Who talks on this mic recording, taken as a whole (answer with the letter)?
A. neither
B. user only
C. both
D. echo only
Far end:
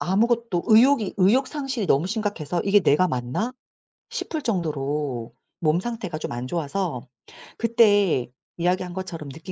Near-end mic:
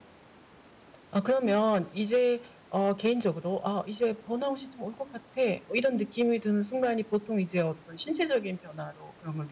B